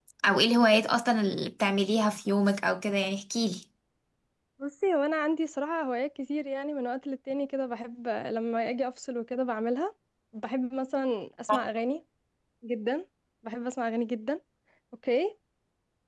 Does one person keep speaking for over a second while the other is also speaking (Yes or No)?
No